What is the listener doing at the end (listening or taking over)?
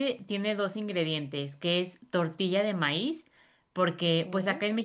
listening